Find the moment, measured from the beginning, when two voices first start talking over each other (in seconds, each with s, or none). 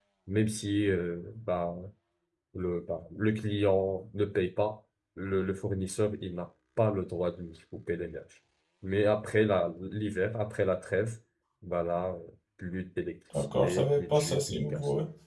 13.3 s